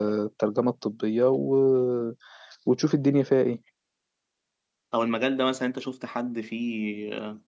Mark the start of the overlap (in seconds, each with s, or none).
none